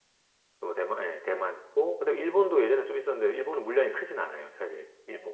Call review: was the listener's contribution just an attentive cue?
No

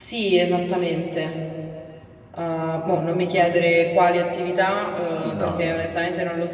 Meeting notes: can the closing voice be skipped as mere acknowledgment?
Yes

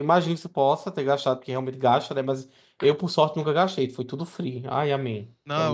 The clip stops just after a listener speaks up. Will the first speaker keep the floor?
No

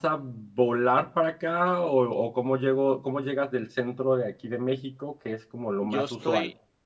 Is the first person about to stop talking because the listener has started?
Yes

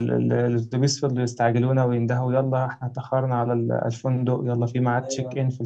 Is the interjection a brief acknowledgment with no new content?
Yes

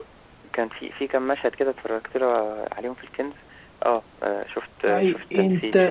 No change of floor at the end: No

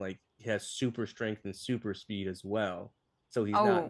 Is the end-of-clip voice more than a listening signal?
No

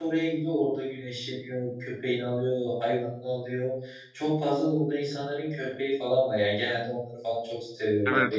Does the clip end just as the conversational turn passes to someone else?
Yes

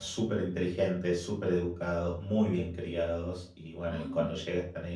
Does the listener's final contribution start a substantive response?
No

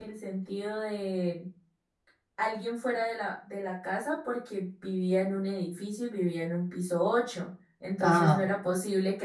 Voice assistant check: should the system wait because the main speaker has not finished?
Yes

